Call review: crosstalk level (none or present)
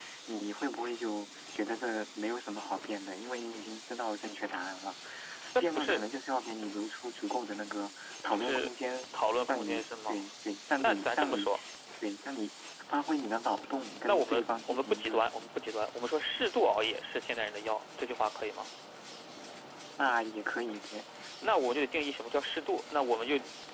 present